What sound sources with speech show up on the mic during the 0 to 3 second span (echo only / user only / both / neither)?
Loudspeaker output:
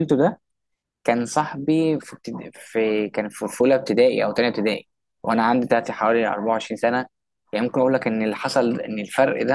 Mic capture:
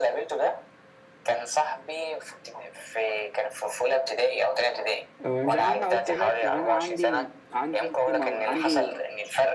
echo only